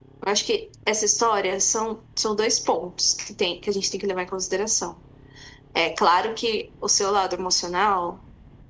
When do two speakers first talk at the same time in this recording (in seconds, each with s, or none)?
none